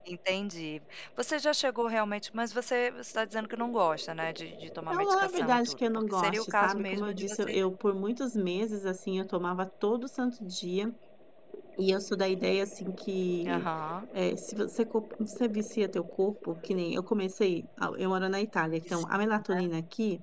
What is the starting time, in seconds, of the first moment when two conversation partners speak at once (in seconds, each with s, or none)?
4.9 s